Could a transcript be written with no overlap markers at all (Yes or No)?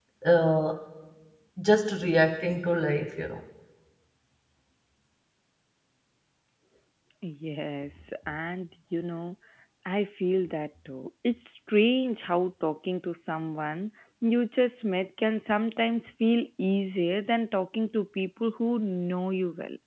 Yes